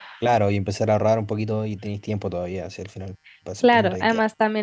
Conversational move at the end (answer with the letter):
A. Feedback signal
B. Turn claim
B